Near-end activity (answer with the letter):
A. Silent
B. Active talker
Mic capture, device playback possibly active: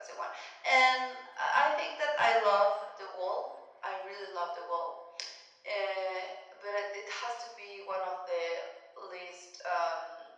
A